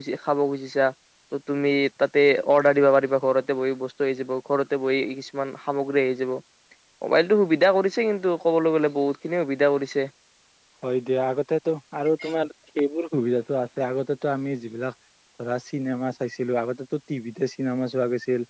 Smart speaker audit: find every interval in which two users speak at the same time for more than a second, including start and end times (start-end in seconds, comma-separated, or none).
none